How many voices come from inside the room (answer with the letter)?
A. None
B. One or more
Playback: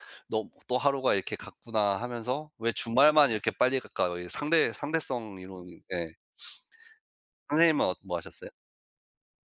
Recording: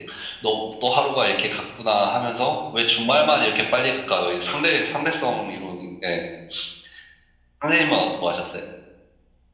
A